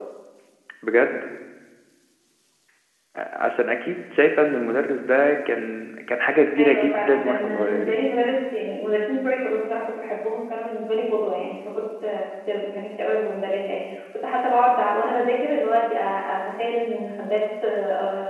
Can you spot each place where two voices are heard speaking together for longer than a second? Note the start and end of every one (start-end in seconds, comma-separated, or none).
6.6-8.0